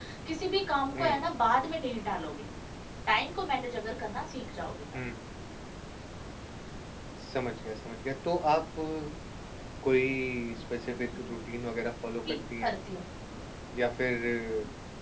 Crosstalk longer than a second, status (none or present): none